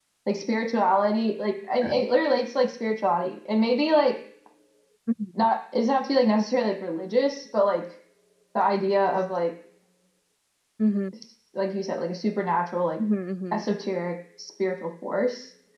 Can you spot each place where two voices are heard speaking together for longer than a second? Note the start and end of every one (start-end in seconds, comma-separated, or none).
none